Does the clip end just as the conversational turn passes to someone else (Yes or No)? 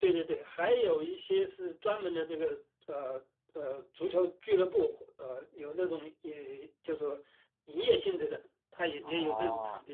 Yes